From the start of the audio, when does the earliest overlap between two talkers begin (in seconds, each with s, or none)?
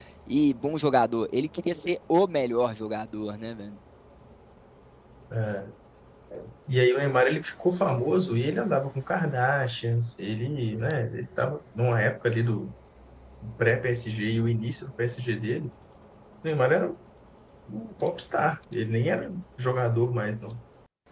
none